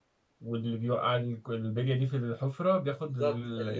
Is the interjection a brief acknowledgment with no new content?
No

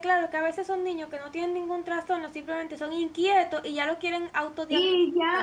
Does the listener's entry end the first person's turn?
Yes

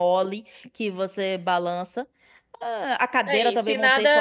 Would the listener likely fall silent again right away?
No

